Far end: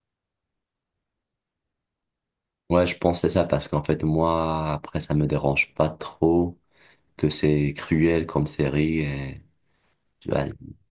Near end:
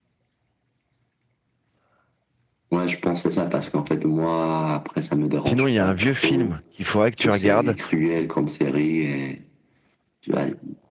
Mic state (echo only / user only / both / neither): both